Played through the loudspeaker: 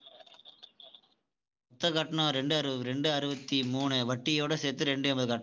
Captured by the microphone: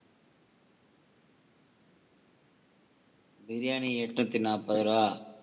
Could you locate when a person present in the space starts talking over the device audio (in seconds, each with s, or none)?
3.5 s